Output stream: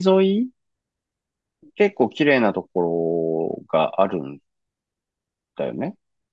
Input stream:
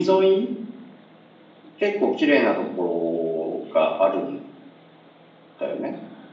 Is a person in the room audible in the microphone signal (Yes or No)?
No